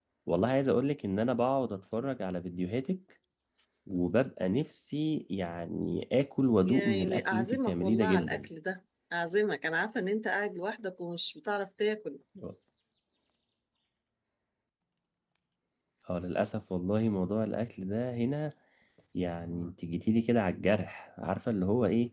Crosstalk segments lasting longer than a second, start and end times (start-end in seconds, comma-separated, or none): 6.6-8.5